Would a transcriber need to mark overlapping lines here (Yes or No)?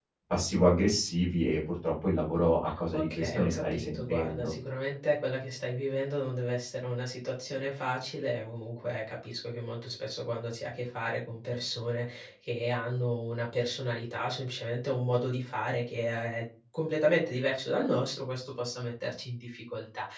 Yes